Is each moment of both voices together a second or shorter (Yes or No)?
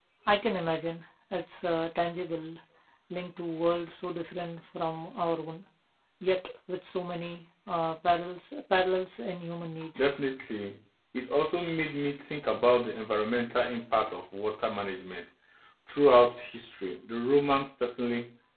Yes